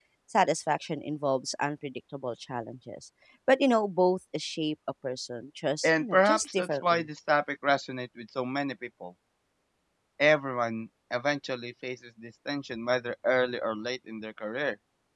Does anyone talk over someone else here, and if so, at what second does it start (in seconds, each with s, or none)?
5.8 s